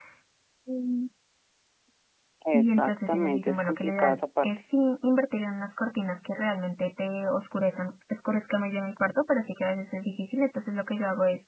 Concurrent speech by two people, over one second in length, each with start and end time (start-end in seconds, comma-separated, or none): 2.5-4.5